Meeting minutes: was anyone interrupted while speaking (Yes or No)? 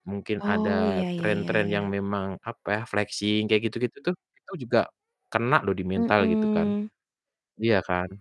Yes